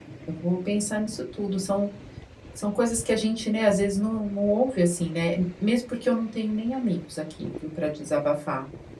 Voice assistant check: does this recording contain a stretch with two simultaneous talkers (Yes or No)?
No